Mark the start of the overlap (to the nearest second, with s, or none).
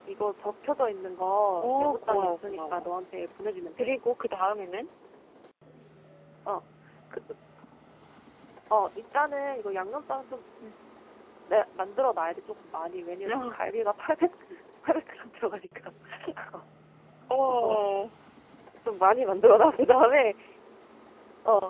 2 s